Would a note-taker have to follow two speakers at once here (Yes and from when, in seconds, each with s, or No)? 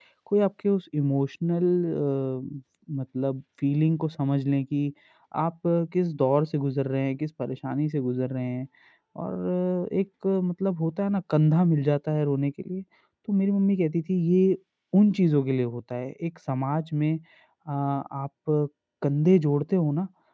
No